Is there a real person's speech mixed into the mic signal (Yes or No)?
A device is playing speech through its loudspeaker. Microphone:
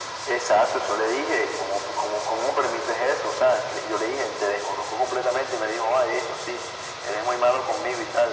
No